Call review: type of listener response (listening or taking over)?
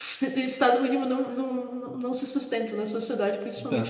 taking over